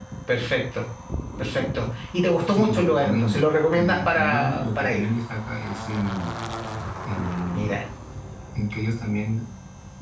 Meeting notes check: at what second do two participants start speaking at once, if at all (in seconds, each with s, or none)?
2.5 s